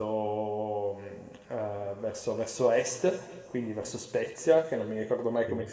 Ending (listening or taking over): listening